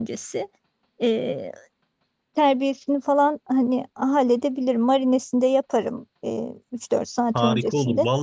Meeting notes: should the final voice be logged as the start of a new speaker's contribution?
Yes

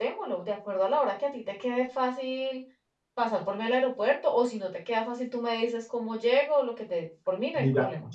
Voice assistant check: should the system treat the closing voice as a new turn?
Yes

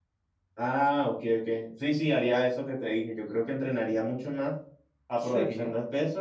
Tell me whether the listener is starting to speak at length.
No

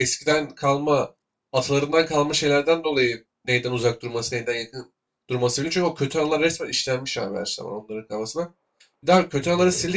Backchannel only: Yes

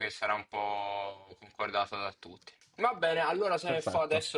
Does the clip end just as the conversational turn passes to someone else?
No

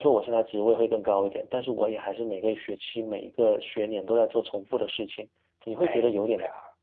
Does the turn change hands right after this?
No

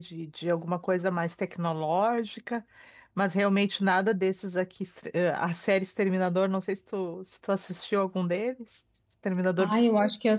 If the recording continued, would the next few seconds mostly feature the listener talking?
Yes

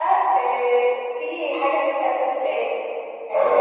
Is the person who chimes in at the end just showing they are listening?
No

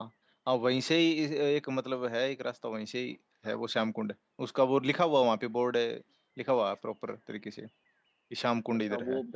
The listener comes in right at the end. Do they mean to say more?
Yes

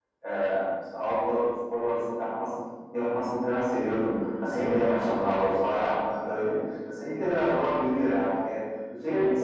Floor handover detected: No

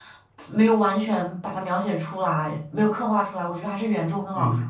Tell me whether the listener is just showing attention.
No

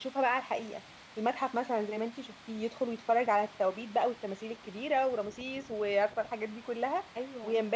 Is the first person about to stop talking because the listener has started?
No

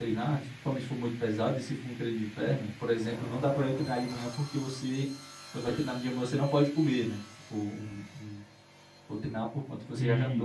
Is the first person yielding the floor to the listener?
No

